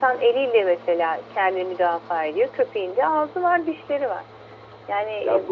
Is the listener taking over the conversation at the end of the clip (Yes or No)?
Yes